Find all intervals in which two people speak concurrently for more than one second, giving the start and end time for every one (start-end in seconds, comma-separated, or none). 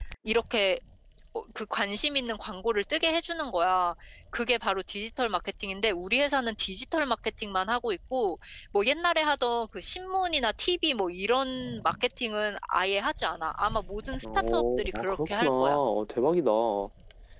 14.5-15.8